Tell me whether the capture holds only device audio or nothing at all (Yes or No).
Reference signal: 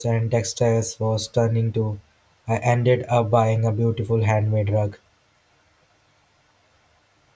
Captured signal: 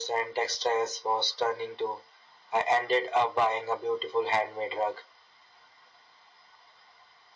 Yes